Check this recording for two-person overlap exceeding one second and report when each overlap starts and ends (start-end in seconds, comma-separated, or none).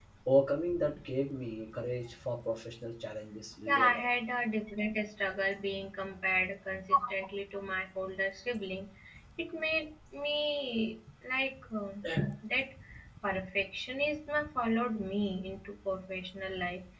none